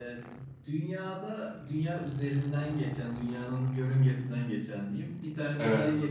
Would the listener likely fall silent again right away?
Yes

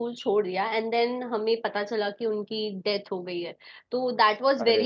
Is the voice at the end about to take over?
No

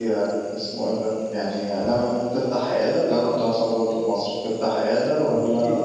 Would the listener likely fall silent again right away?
No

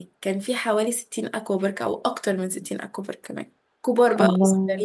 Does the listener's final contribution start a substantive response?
No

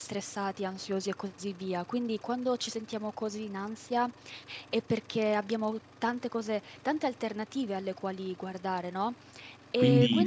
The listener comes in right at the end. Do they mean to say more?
Yes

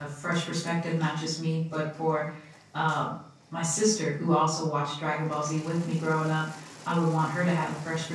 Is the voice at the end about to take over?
No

